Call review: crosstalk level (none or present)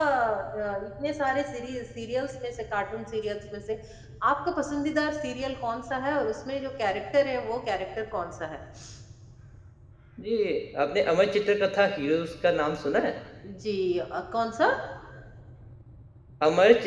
none